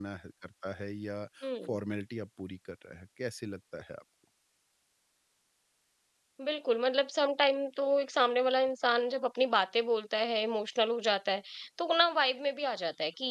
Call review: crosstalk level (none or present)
none